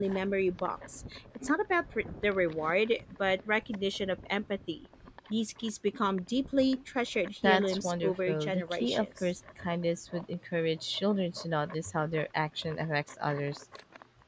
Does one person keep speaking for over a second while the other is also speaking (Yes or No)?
Yes